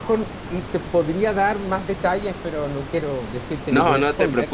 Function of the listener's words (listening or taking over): taking over